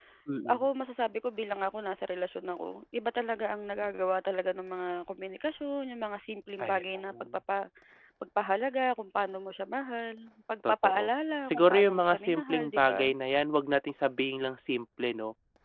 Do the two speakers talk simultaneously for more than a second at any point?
Yes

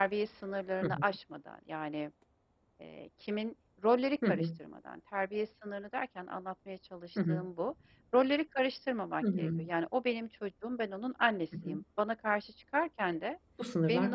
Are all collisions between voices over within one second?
Yes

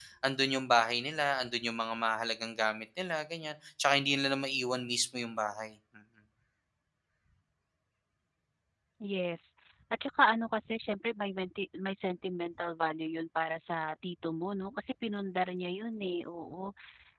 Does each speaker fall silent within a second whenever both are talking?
Yes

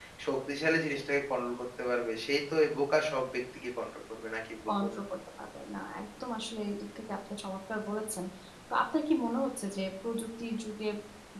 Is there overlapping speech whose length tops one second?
No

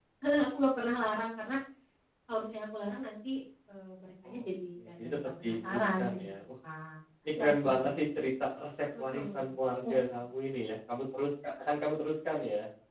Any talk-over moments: Yes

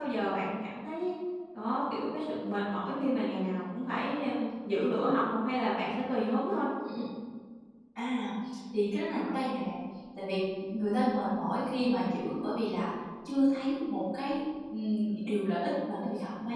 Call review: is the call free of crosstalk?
Yes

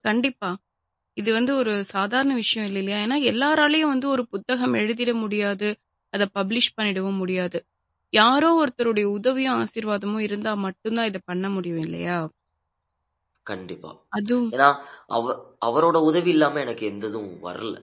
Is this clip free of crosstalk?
Yes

